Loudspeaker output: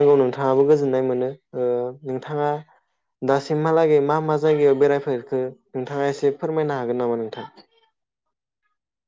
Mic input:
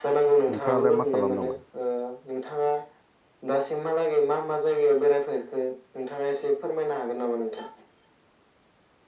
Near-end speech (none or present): present